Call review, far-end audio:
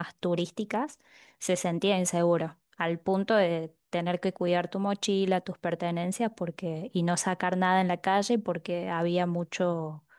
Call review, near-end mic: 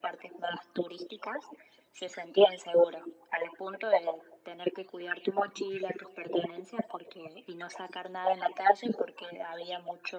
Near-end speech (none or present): none